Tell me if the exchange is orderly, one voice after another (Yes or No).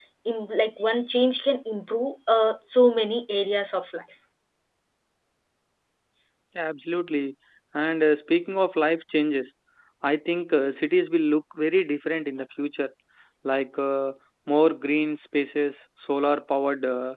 Yes